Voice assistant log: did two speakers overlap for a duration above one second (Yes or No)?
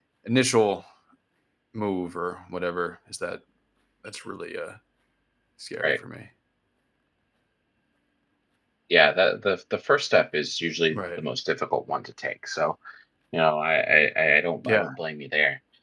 No